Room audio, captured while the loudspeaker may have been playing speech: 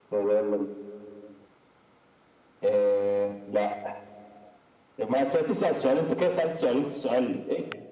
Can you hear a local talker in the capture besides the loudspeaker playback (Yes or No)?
No